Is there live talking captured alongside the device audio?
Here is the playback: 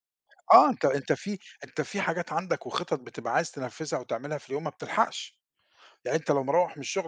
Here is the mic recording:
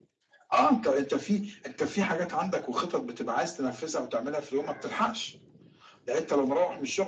No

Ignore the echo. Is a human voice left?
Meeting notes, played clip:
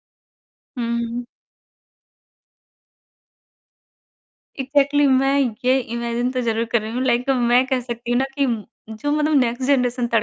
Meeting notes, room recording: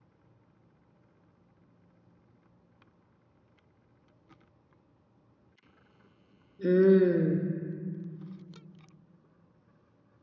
Yes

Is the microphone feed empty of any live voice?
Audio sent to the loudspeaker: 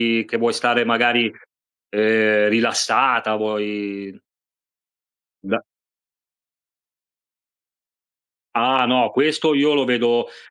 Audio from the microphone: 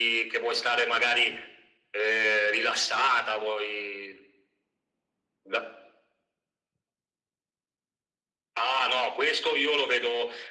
Yes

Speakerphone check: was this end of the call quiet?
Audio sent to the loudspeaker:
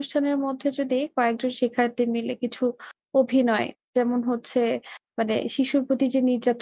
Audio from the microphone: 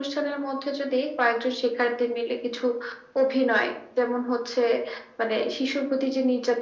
Yes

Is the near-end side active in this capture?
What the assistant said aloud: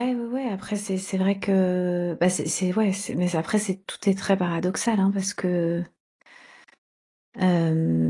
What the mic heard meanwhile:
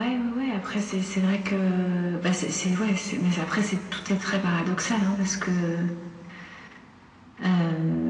No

